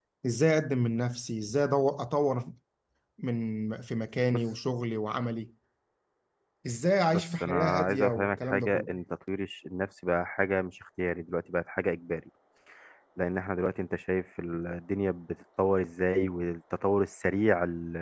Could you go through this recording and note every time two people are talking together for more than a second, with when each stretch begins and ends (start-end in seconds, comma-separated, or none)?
7.1-8.9